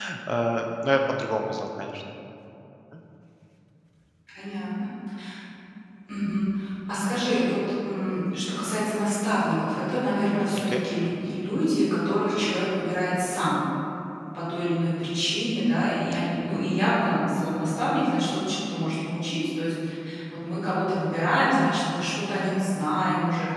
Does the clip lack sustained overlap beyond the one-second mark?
Yes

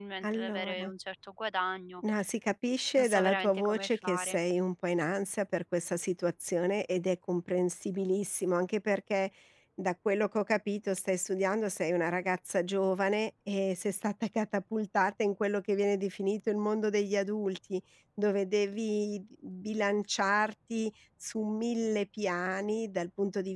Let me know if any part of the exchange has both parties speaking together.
Yes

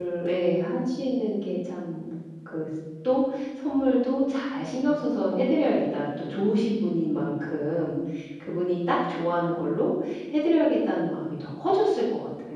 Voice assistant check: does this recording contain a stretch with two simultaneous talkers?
No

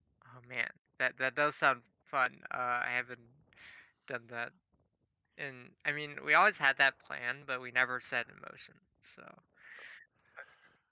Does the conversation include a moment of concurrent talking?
No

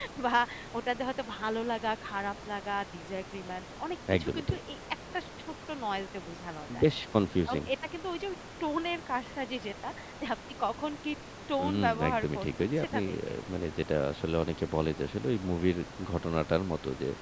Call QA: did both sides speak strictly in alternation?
No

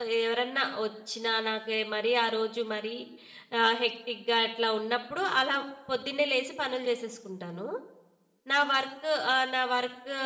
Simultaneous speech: No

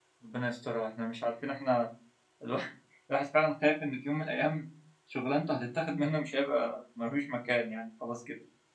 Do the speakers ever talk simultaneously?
No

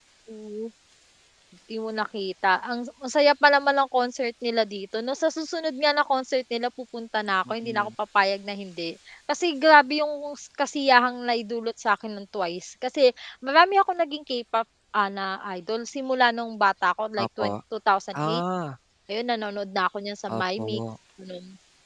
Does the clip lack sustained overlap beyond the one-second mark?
Yes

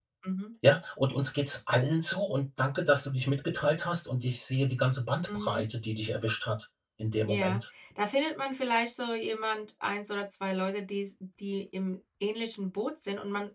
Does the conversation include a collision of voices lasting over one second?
No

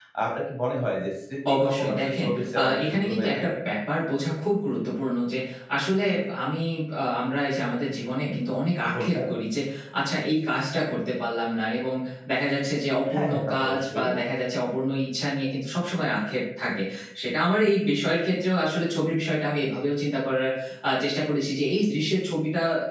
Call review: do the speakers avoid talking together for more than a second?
No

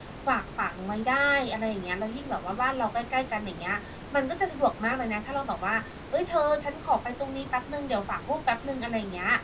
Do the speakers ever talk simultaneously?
No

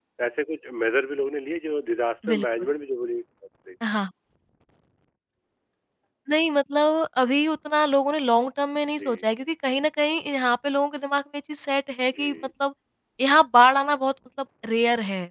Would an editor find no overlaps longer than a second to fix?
Yes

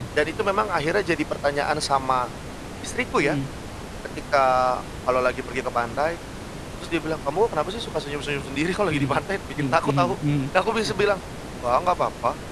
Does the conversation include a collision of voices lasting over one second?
No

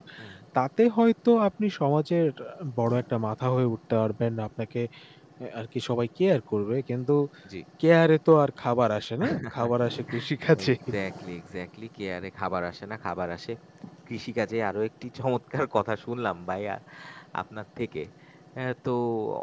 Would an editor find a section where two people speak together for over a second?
No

